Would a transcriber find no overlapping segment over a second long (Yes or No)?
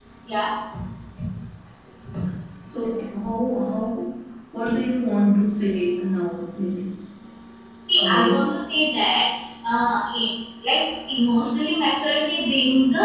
Yes